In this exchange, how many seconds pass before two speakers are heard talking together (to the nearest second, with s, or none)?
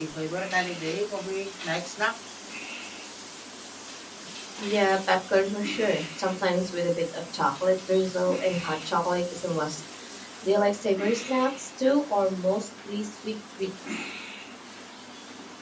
none